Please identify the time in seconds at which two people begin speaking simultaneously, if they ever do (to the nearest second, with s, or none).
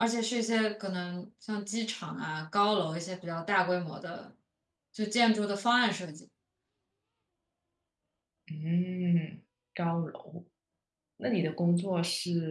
none